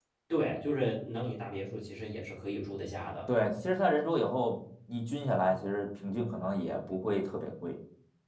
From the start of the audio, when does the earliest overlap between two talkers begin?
none

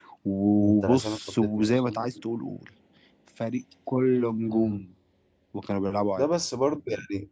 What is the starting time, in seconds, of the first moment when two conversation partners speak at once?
0.6 s

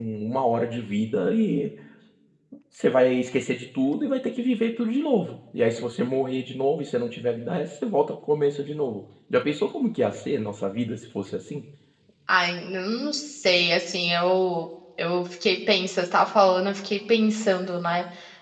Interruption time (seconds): none

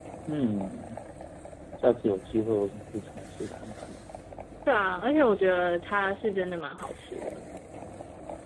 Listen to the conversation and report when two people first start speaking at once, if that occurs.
none

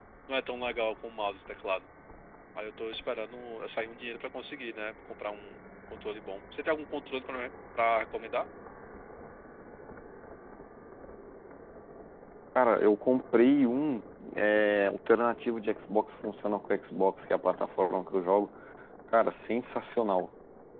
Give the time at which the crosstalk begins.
none

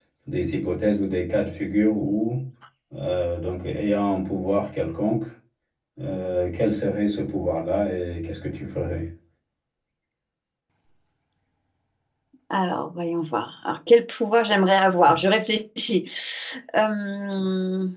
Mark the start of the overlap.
none

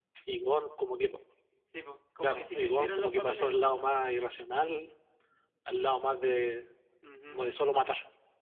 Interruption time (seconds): 2.2 s

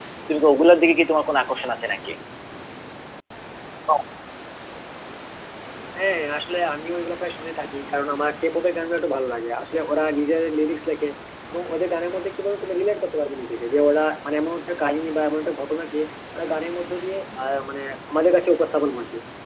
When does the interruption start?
none

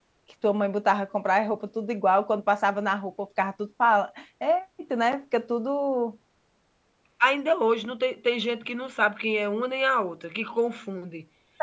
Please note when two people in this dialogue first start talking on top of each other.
none

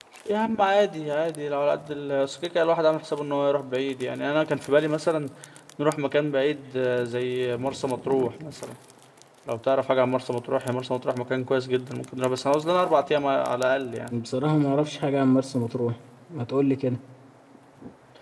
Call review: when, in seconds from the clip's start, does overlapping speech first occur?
none

